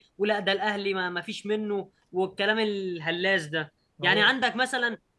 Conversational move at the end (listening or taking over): listening